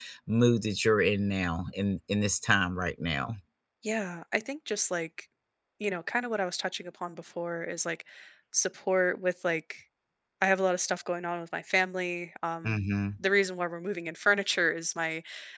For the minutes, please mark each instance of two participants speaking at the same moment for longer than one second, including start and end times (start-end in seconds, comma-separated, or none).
none